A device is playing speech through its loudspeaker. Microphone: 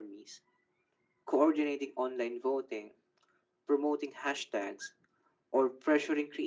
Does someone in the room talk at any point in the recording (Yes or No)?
No